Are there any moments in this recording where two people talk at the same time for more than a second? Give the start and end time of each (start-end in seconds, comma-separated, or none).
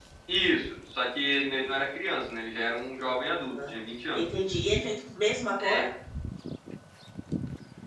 none